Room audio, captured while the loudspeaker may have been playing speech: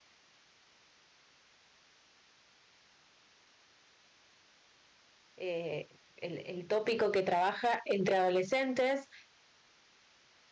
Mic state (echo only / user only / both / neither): user only